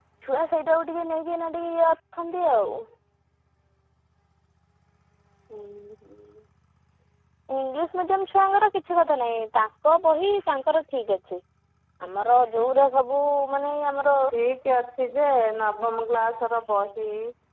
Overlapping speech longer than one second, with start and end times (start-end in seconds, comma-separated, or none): none